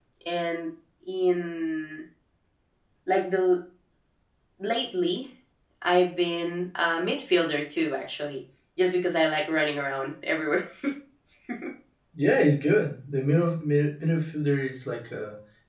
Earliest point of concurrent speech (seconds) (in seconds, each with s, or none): none